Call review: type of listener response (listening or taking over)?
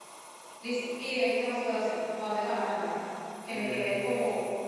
listening